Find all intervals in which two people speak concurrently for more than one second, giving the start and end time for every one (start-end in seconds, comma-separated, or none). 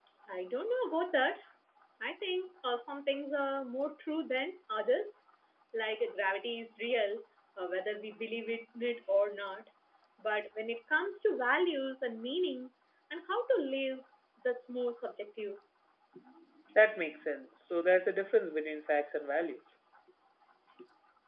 none